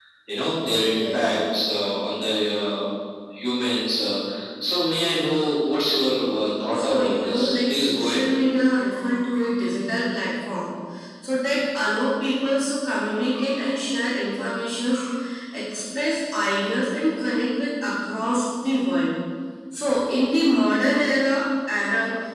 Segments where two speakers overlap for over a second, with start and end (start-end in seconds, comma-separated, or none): 6.8-8.3